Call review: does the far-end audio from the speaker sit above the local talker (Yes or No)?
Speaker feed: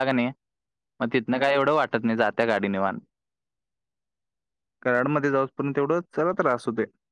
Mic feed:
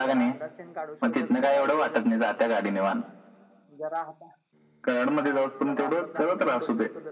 Yes